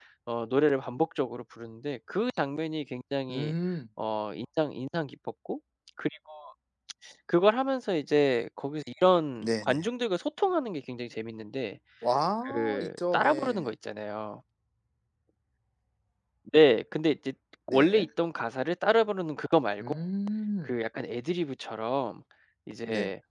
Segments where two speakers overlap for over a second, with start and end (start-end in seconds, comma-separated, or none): 12.4-13.7